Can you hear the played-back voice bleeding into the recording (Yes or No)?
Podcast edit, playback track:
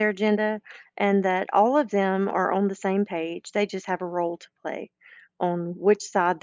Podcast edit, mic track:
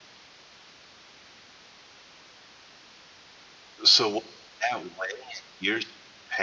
No